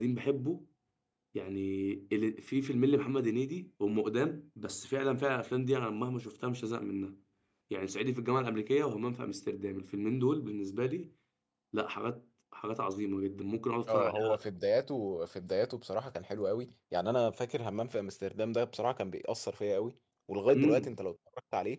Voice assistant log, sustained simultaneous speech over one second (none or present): none